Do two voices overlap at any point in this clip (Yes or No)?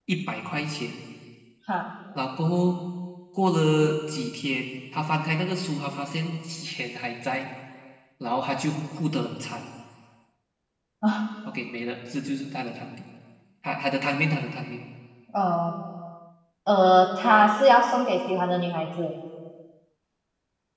No